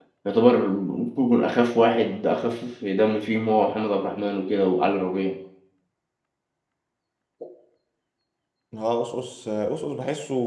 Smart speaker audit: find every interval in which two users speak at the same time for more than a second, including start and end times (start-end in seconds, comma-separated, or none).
none